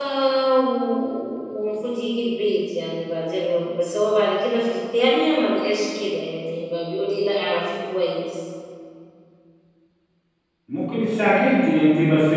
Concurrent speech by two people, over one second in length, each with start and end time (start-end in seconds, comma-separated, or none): none